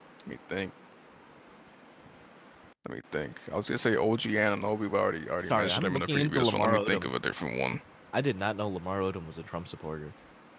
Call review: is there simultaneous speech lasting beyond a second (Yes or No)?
Yes